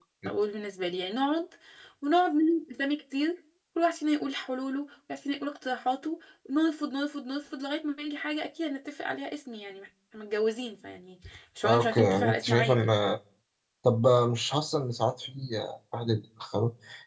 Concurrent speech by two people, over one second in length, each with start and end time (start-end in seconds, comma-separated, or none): 11.6-12.9